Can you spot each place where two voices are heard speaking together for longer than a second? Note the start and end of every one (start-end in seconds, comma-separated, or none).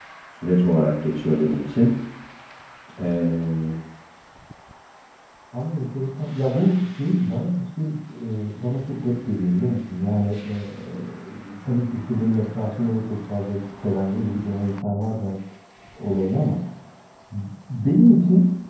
none